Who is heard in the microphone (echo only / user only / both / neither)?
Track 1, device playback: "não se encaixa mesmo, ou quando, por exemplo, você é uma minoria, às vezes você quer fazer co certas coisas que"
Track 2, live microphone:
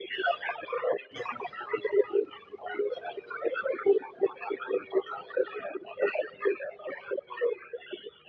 echo only